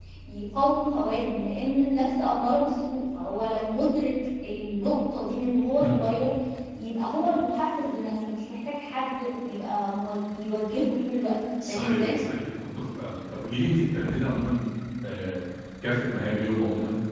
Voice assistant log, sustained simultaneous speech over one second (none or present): none